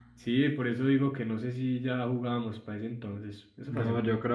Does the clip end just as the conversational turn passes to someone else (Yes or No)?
Yes